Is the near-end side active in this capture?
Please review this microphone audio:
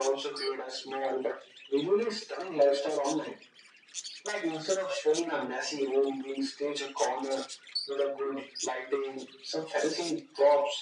No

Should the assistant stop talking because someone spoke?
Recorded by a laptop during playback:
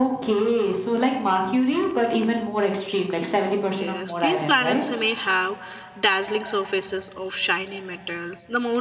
Yes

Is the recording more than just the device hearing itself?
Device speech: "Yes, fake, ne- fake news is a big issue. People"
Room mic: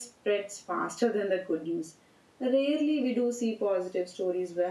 Yes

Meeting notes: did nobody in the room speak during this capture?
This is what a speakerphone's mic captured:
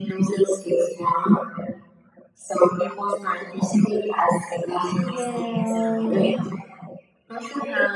No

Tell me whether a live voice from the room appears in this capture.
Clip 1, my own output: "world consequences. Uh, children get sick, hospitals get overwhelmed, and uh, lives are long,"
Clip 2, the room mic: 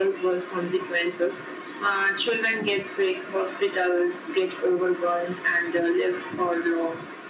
No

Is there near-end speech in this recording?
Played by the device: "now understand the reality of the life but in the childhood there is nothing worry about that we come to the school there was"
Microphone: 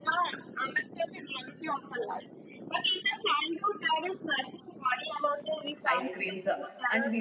Yes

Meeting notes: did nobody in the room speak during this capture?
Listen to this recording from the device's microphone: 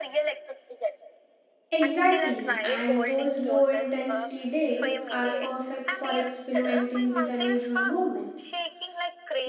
No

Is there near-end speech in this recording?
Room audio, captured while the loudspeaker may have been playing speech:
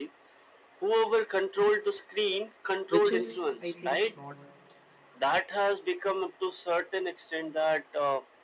Yes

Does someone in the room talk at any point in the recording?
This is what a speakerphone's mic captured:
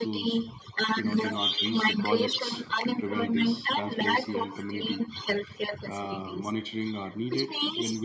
Yes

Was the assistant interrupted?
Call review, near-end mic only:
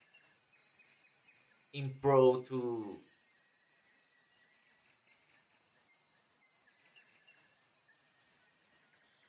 Yes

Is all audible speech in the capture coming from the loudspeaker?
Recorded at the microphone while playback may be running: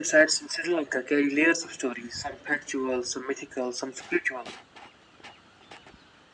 Yes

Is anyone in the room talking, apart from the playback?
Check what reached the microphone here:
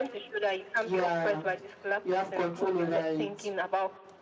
Yes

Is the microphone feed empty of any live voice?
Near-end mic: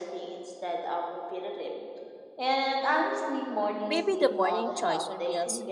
No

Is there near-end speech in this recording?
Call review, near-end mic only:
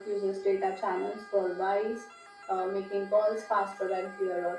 No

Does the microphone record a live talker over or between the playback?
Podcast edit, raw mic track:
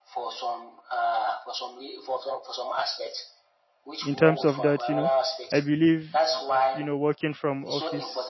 Yes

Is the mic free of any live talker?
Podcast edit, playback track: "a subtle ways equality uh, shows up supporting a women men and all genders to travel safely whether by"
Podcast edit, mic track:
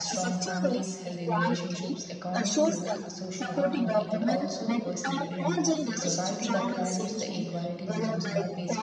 No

